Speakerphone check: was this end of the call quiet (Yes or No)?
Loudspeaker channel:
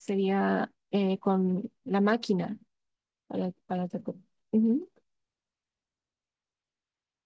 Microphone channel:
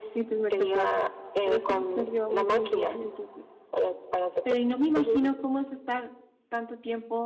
No